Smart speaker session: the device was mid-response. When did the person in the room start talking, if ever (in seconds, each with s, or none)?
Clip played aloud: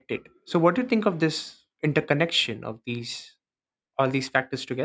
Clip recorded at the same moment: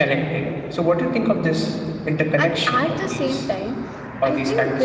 2.4 s